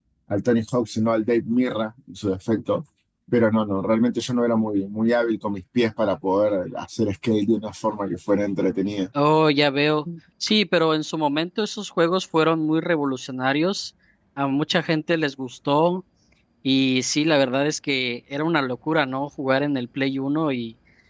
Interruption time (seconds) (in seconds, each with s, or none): none